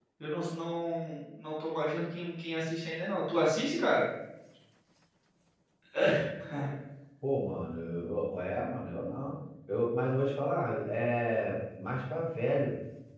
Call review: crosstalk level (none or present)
none